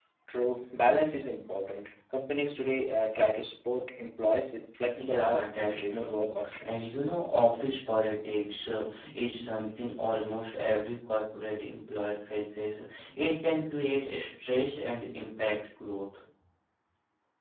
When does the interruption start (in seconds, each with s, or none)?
4.9 s